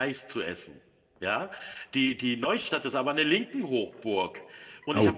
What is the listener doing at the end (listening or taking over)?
listening